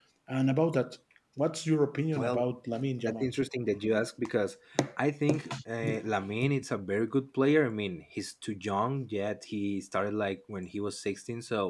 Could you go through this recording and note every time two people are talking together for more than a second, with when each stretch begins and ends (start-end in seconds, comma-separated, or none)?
none